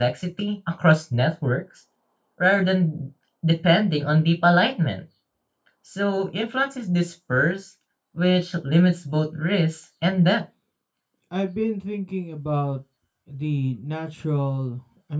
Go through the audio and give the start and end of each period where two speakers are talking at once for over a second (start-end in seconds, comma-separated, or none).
none